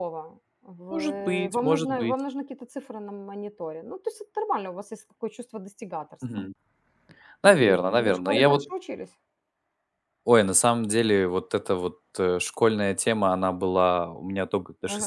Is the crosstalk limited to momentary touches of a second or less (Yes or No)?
No